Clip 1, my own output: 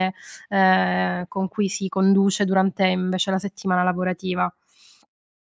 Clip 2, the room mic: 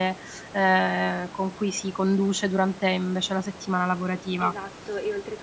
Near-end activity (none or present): present